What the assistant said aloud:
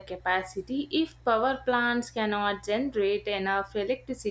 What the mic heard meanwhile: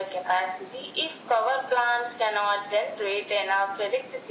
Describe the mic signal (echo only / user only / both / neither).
echo only